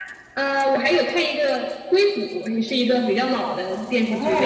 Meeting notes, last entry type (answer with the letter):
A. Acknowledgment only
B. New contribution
B